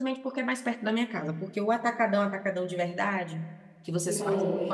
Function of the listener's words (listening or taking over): listening